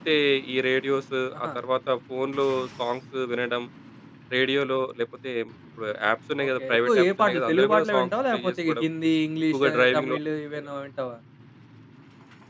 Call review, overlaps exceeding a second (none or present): present